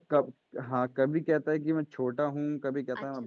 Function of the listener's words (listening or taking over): taking over